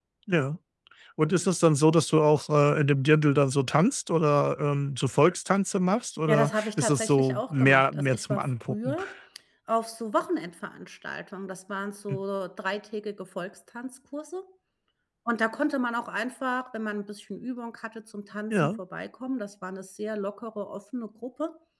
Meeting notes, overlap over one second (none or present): present